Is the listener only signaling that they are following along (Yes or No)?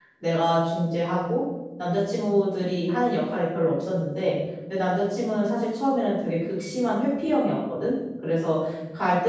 Yes